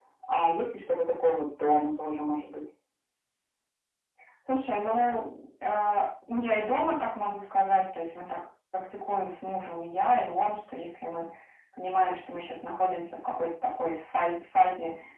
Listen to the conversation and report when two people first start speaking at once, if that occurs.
none

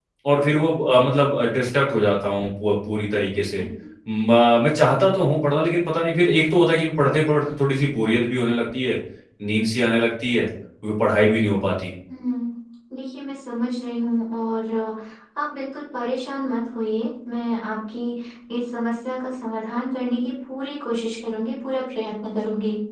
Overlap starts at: none

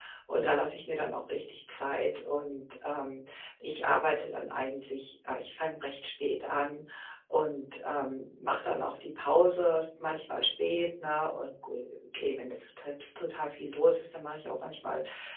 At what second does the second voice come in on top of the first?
none

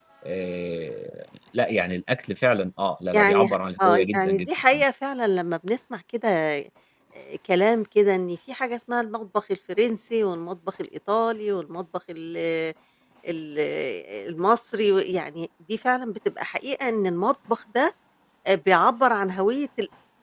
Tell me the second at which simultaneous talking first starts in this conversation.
3 s

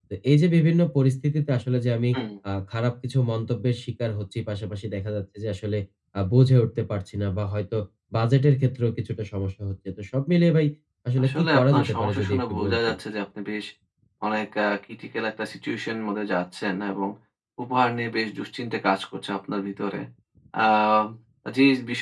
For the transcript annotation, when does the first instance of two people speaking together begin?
11 s

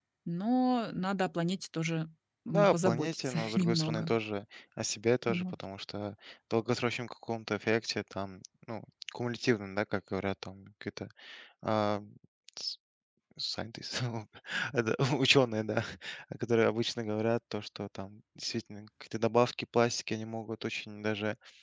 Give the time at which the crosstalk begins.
2 s

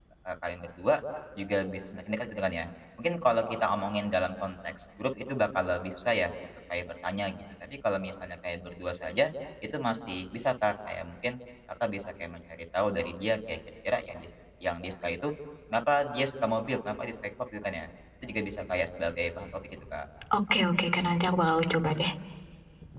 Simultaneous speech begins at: none

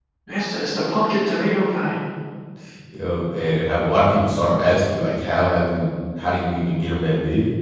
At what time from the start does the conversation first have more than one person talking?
none

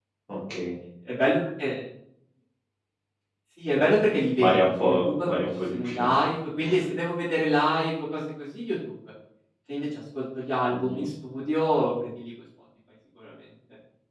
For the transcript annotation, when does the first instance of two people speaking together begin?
4 s

